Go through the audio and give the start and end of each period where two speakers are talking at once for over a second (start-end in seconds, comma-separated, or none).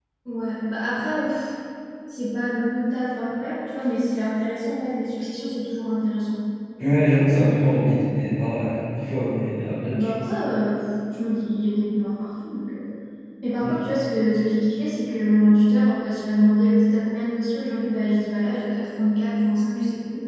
none